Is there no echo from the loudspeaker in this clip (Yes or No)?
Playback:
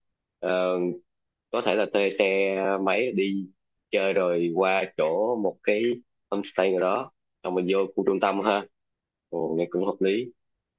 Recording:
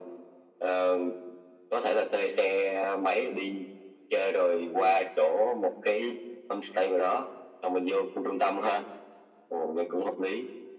No